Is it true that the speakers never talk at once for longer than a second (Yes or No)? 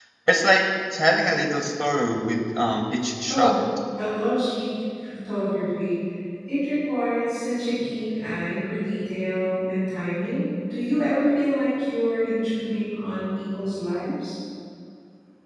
Yes